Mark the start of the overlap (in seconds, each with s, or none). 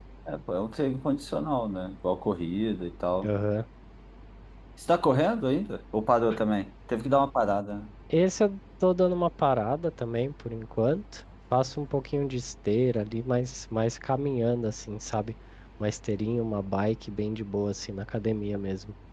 none